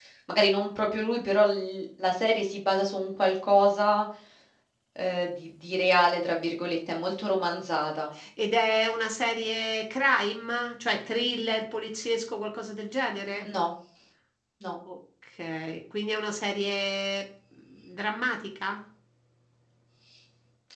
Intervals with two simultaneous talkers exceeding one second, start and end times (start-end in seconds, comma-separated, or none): none